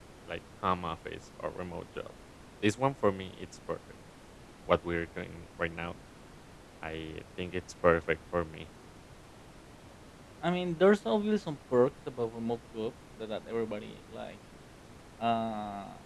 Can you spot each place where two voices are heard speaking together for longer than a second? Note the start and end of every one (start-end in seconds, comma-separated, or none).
none